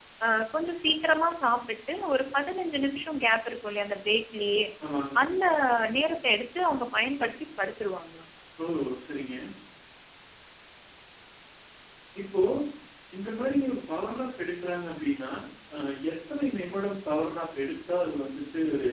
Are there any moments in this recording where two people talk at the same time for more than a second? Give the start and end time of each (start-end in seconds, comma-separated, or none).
none